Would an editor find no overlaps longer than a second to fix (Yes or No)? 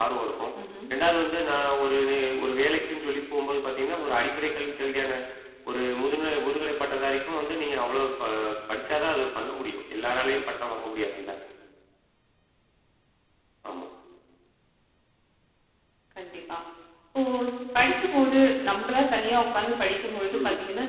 Yes